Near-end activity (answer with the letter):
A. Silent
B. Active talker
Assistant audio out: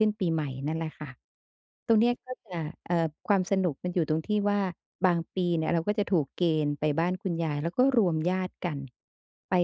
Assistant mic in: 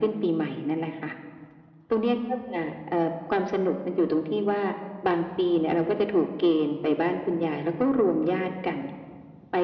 A